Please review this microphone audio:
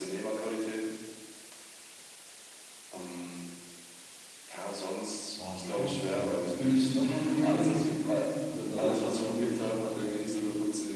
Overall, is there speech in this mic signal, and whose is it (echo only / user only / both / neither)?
both